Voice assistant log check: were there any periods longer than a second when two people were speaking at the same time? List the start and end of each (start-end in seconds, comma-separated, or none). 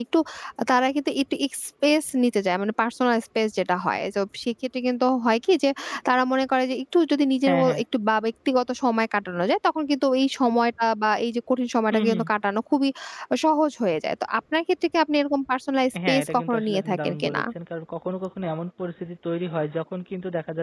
16.1-17.4